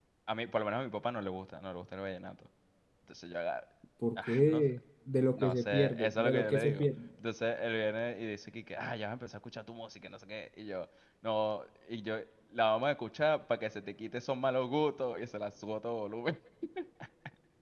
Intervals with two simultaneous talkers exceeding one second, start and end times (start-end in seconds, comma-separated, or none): 5.3-6.9